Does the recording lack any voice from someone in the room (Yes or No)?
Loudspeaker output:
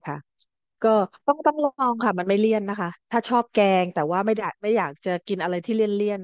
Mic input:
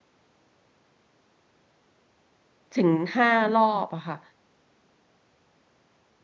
No